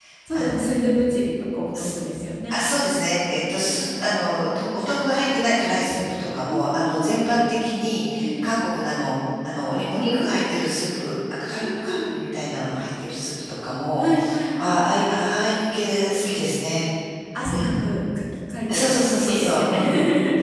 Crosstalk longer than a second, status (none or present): present